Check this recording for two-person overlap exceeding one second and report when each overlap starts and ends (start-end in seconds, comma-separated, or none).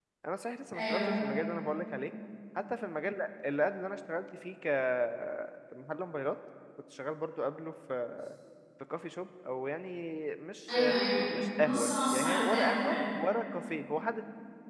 11.6-13.0